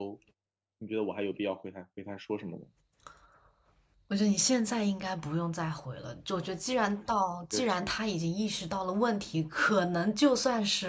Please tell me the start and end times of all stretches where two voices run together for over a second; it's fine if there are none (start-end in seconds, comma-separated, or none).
none